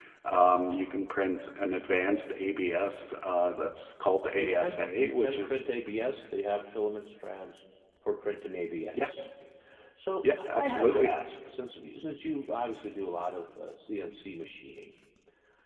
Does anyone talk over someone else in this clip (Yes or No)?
Yes